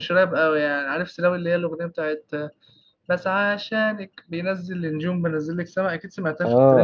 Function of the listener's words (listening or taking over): taking over